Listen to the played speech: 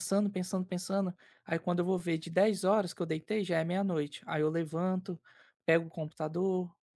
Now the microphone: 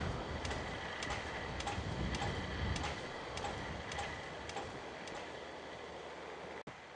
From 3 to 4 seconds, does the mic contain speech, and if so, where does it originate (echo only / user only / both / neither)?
neither